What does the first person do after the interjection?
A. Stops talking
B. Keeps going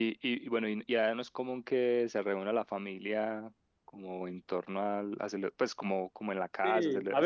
A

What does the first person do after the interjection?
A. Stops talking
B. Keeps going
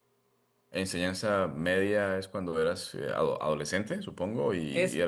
A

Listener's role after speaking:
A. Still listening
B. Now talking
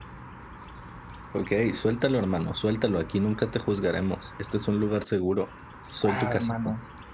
B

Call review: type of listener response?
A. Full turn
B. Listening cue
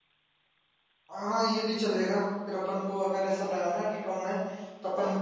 B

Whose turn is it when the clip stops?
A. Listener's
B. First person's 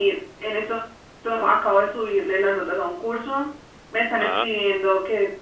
B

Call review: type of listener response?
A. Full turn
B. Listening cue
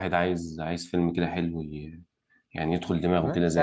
A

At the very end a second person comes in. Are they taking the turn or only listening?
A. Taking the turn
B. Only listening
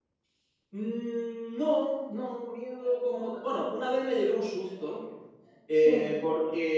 B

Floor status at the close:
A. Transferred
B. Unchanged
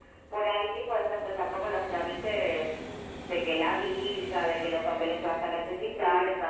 B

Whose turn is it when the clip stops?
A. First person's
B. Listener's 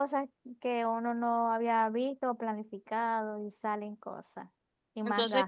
B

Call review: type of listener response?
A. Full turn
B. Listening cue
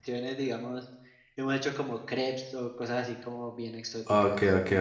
A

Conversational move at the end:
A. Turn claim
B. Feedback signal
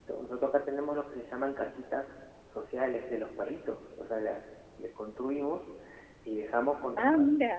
B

